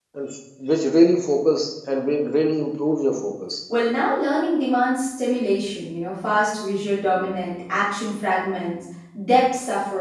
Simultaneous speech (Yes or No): No